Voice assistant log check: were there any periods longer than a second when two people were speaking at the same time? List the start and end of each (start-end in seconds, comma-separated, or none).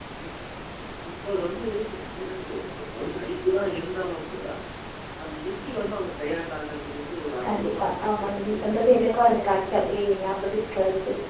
7.4-8.7